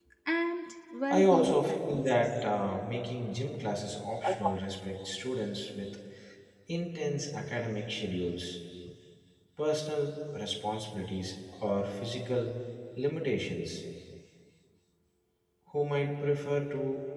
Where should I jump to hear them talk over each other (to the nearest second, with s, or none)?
1 s